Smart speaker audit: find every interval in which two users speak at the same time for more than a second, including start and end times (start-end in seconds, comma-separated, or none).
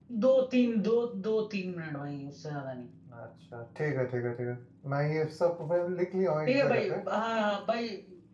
none